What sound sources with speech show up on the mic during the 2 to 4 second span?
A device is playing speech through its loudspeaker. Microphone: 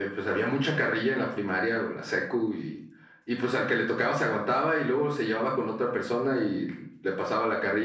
echo only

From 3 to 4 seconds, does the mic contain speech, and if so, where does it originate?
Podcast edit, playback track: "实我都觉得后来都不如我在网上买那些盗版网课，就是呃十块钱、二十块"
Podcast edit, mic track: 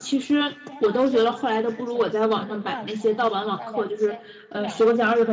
both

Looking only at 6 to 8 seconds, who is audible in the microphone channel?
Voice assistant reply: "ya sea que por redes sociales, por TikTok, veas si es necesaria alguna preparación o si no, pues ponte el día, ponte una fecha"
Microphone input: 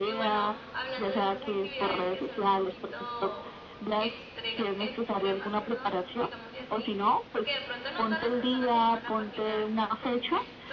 both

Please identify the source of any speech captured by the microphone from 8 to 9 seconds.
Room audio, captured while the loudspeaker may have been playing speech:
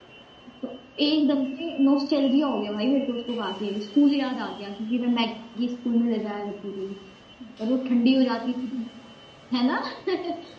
user only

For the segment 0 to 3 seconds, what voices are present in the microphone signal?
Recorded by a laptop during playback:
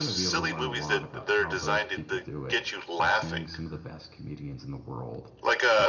both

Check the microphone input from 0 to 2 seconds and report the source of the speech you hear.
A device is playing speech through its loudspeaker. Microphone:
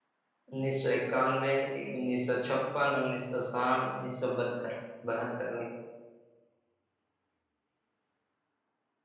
user only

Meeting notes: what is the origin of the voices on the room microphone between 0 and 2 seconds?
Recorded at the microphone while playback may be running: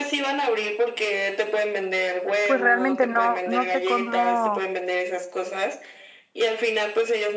echo only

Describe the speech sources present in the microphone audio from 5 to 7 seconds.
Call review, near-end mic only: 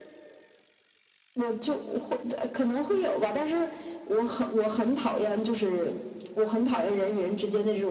echo only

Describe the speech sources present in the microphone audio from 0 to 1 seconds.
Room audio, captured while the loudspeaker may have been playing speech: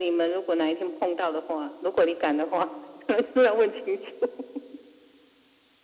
echo only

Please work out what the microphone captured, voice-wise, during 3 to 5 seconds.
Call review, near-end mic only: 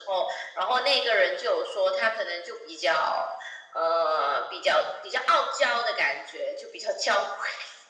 echo only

